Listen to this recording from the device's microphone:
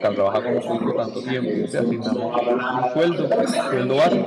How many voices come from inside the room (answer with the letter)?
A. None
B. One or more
B